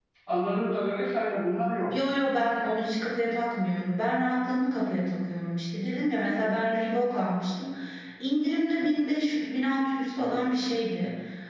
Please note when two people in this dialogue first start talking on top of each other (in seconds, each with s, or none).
none